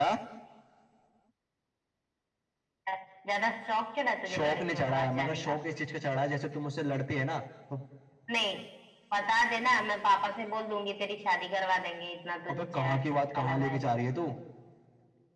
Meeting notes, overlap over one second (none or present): present